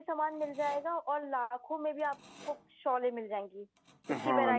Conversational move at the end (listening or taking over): taking over